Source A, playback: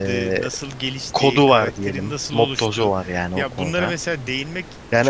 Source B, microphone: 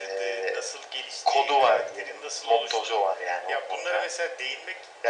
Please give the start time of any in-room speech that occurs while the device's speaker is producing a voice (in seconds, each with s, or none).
none